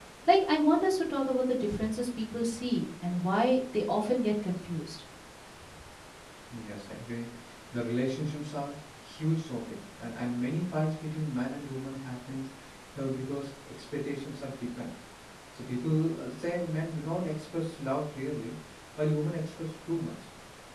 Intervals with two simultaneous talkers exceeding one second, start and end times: none

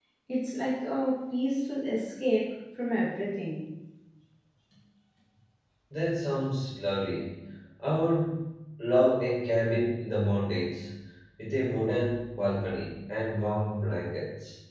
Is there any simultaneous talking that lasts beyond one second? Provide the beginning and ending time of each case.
none

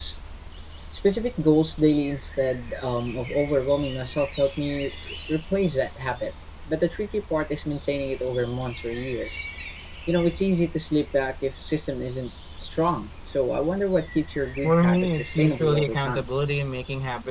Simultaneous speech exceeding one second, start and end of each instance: 14.6-16.2

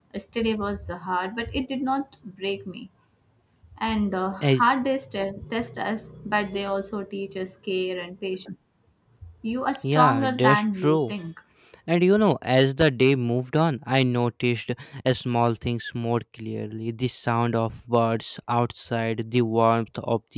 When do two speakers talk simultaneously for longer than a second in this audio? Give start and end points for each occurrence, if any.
9.9-11.1

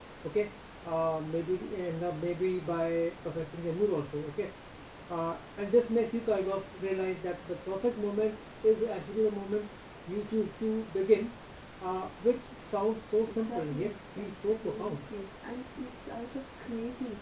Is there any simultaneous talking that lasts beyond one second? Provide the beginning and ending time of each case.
13.3-15.0

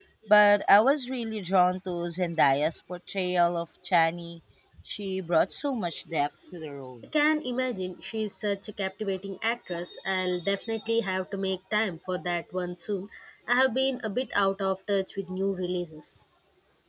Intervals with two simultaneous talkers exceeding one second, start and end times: none

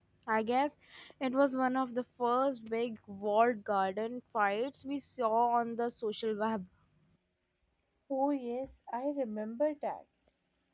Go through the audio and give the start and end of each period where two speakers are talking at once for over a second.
none

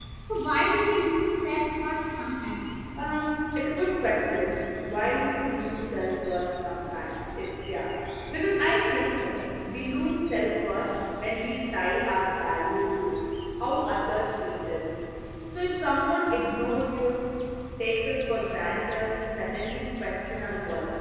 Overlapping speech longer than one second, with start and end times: none

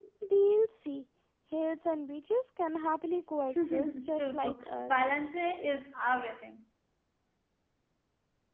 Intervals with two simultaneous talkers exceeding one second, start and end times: 3.5-4.9

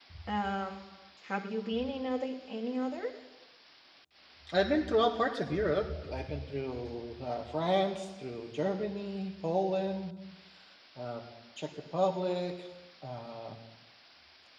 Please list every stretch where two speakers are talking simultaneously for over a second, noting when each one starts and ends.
none

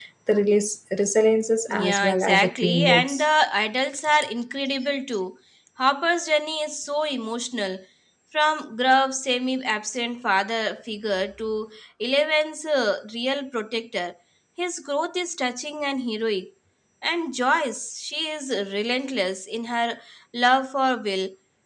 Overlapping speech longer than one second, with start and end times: 1.7-3.2

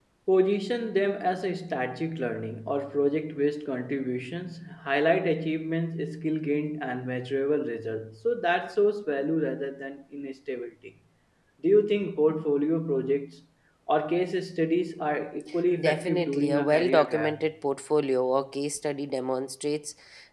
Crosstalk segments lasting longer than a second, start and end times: 15.8-17.4

